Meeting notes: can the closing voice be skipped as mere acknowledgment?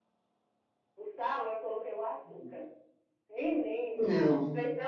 Yes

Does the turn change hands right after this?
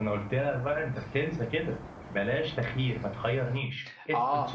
Yes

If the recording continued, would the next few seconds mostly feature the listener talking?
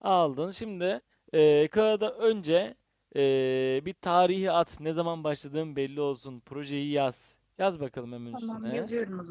Yes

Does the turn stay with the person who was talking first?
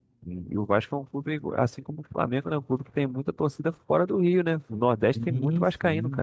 No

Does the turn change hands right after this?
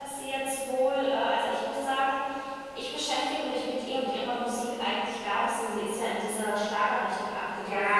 Yes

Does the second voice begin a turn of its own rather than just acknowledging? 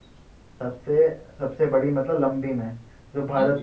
No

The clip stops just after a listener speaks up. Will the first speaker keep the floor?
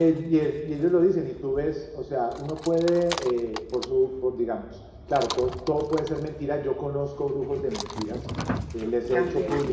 Yes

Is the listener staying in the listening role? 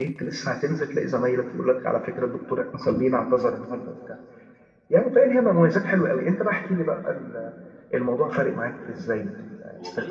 No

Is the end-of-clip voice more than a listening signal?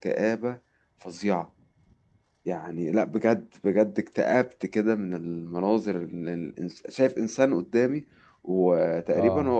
No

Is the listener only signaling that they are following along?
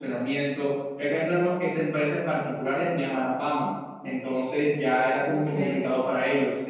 Yes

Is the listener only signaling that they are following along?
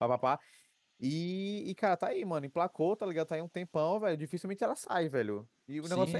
No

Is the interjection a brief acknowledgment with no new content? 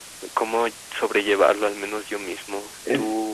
Yes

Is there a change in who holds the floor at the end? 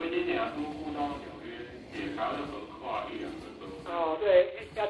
Yes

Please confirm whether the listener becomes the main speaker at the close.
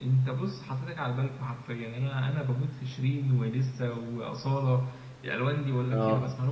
Yes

